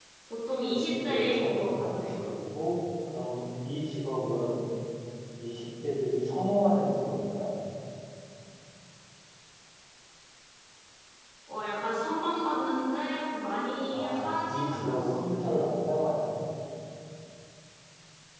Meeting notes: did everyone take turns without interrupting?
No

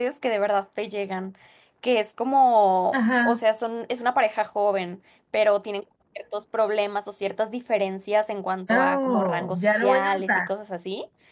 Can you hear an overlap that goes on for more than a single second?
Yes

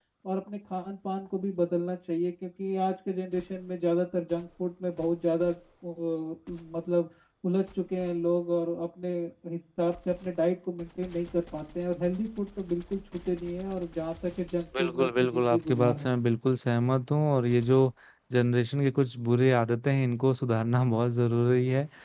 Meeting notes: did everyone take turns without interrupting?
No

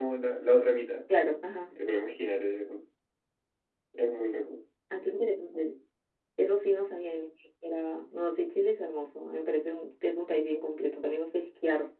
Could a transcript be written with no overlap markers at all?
Yes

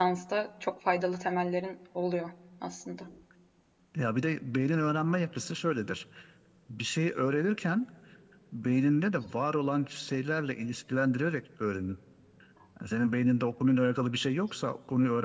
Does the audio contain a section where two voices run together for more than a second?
No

